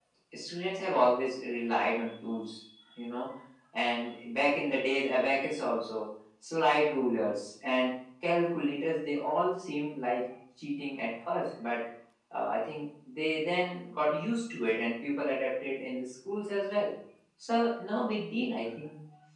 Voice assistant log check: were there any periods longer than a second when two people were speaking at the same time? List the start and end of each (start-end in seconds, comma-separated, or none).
none